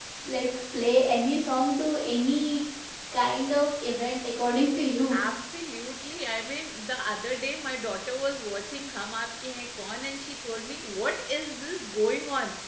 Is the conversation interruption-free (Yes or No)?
Yes